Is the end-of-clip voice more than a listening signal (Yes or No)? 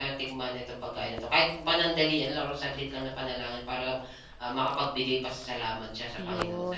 Yes